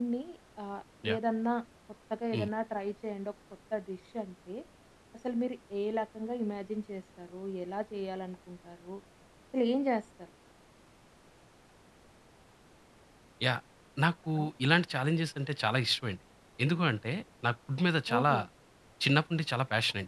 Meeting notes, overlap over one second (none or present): none